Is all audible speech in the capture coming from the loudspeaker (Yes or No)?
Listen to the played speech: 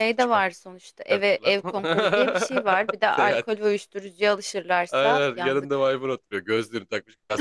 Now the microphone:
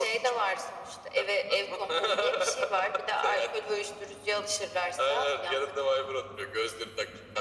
Yes